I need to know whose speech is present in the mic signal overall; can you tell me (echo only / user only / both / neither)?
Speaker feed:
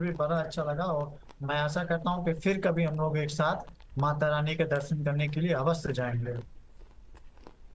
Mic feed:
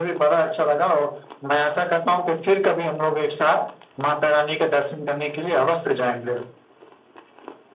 echo only